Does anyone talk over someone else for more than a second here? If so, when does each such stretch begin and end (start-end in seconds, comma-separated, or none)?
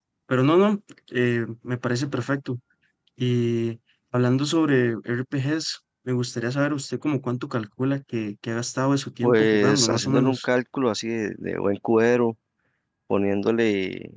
9.2-10.5